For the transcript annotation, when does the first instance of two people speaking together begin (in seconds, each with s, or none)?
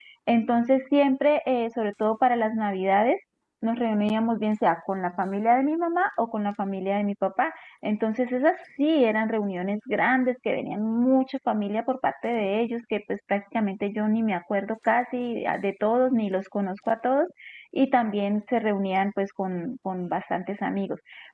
none